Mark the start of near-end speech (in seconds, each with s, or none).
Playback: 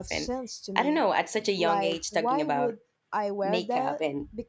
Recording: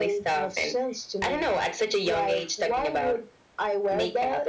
none